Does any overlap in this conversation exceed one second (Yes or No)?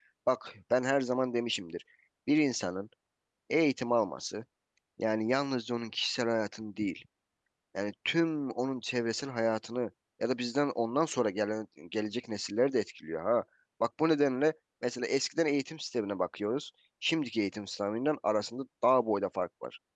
No